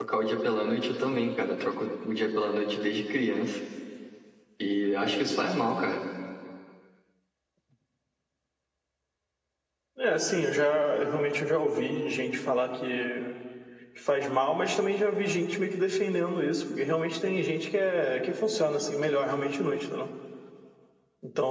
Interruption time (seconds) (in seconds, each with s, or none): none